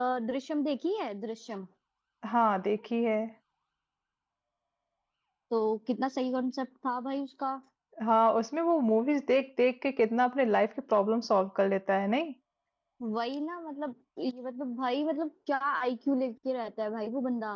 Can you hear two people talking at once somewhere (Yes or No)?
No